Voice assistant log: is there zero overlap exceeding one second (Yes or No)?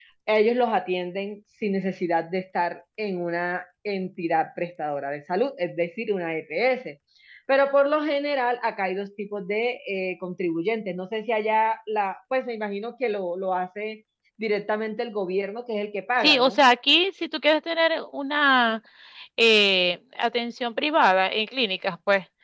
Yes